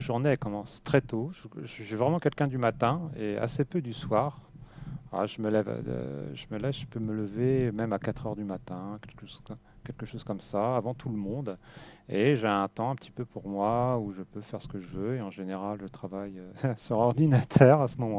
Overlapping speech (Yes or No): No